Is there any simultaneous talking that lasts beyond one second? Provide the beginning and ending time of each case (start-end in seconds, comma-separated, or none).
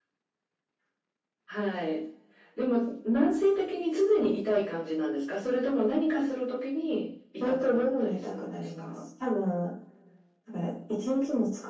7.4-8.9